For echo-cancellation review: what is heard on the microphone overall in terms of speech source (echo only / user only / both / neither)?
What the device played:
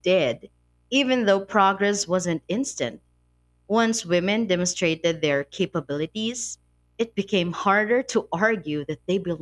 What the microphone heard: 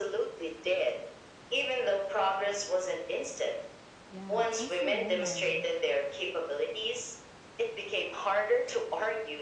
both